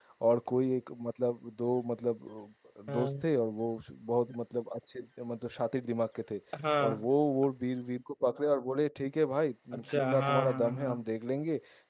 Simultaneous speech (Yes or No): Yes